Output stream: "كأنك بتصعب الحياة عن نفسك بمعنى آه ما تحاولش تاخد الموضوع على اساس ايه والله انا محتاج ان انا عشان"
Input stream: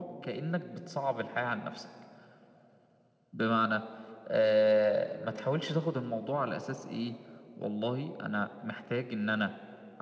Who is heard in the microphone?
echo only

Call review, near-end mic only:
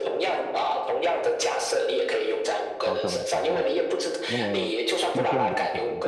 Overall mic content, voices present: both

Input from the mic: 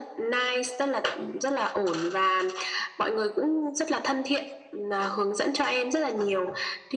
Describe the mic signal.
echo only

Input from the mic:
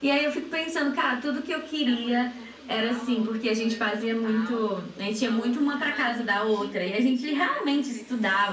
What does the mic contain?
both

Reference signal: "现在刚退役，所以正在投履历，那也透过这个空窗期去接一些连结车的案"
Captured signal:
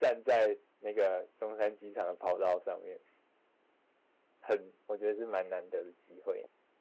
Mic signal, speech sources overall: user only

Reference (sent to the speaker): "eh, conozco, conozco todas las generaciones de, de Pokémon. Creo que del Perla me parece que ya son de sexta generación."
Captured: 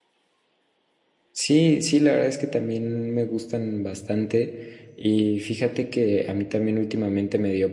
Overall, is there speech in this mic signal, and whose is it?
user only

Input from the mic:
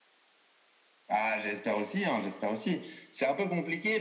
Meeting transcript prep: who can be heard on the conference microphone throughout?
echo only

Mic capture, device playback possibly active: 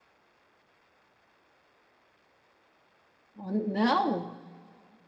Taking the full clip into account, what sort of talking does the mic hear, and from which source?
user only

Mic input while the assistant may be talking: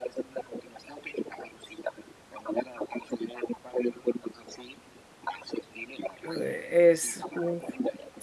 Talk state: both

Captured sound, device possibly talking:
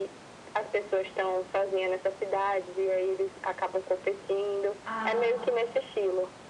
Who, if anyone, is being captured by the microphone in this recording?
both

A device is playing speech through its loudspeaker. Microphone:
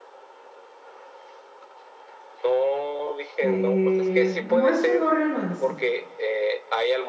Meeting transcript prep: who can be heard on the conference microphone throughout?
both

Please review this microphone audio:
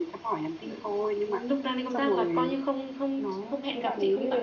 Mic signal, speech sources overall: echo only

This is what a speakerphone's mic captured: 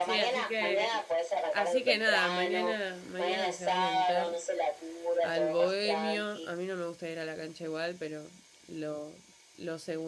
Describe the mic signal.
both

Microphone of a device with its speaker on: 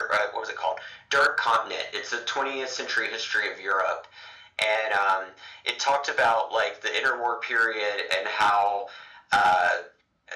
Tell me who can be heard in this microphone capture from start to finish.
echo only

